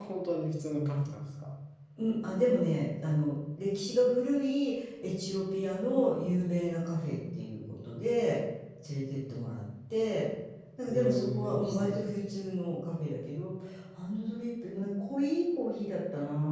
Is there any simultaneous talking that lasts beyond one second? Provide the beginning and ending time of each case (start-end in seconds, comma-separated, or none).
10.9-12.2